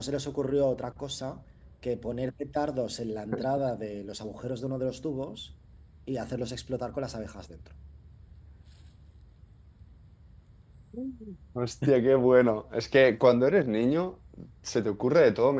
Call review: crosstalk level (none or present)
none